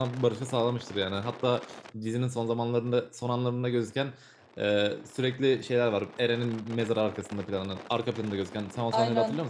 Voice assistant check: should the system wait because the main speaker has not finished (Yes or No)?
No